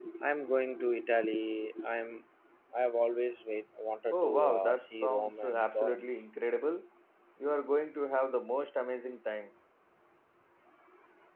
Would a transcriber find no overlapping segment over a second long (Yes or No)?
No